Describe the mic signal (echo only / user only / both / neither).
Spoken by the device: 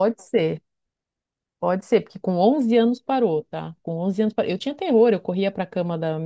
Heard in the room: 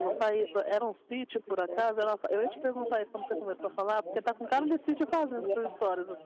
both